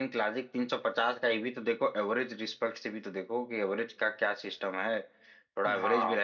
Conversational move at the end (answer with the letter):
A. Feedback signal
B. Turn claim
A